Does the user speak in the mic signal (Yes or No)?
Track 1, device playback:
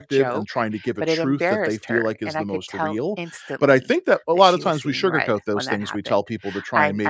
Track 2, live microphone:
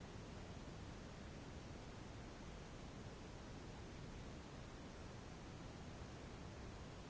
No